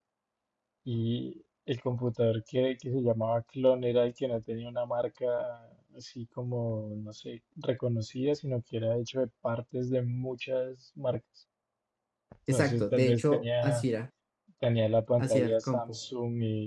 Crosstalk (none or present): present